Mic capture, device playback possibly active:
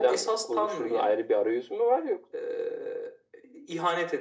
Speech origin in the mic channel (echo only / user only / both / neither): echo only